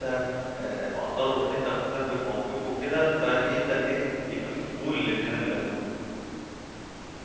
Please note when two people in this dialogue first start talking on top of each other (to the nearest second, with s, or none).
none